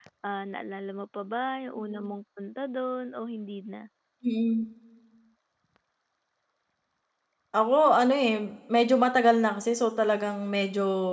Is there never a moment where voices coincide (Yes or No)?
Yes